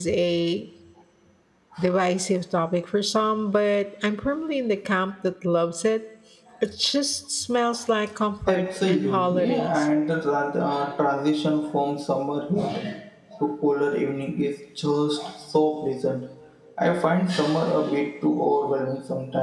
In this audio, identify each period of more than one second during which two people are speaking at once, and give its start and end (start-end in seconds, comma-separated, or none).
8.5-9.8